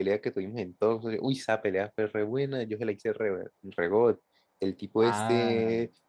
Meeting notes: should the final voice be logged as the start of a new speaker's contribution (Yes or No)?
No